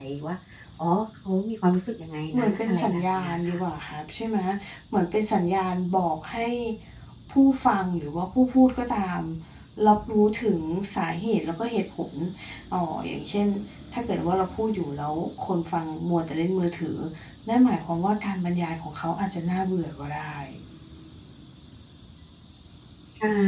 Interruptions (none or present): present